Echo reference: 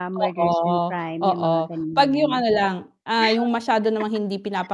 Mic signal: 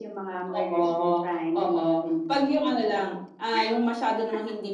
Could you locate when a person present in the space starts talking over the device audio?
none

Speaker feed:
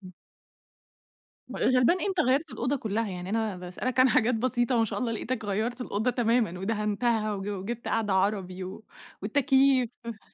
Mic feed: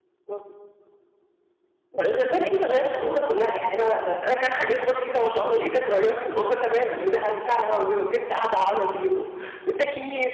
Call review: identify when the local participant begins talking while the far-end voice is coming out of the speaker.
none

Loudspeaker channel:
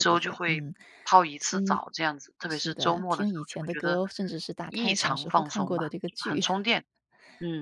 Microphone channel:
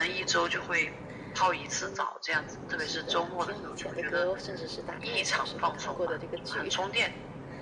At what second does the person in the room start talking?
none

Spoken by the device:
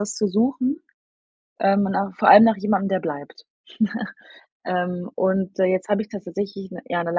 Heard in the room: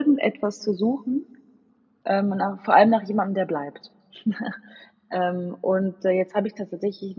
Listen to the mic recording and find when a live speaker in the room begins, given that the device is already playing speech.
none

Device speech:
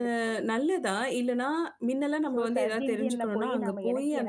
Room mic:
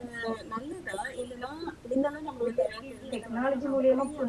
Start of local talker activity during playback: 3.1 s

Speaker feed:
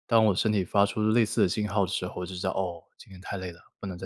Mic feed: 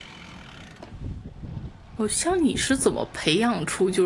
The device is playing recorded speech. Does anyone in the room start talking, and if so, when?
2.0 s

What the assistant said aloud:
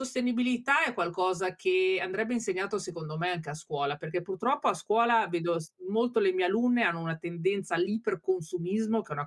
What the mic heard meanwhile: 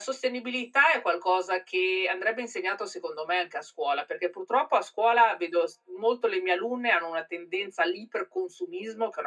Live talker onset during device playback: none

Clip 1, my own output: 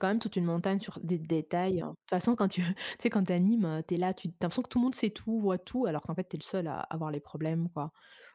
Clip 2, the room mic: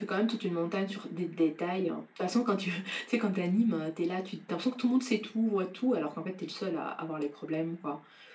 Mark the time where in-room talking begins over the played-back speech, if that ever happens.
none

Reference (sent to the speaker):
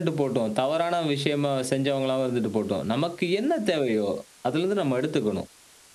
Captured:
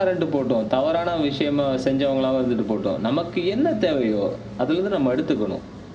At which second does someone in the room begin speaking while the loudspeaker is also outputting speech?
none

